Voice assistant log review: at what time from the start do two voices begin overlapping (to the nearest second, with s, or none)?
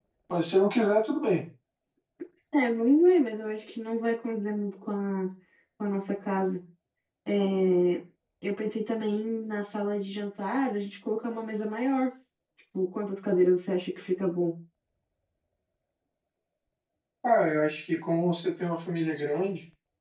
none